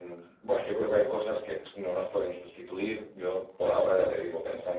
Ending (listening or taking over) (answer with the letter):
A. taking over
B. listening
B